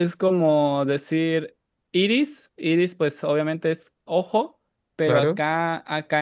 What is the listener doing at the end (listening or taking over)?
listening